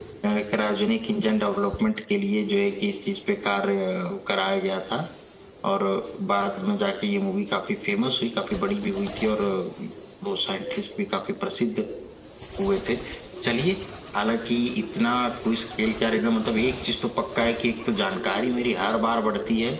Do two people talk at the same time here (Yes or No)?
No